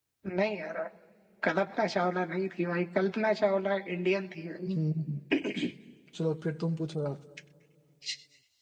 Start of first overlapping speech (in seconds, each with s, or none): none